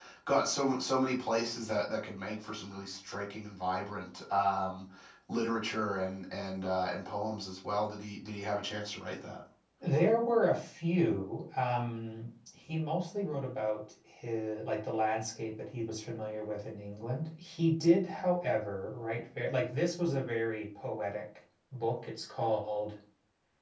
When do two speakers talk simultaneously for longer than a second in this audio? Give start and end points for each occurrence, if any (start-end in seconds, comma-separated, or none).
none